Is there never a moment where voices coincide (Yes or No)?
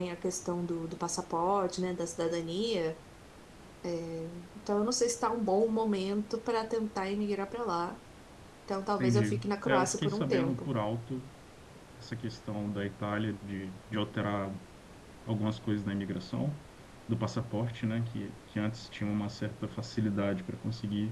No